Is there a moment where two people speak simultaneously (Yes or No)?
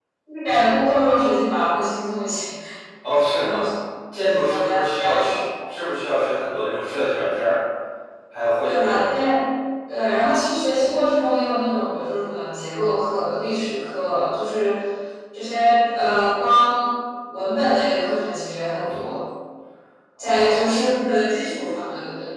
Yes